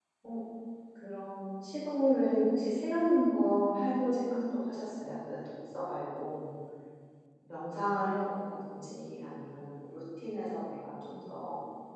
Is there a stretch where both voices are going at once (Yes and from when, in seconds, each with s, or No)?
No